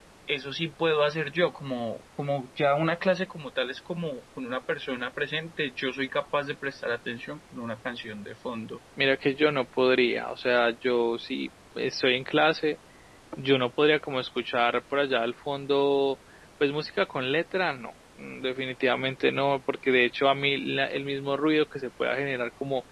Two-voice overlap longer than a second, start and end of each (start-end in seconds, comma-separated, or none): none